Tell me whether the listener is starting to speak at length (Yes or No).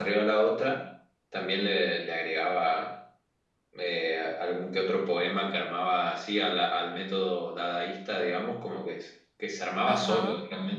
No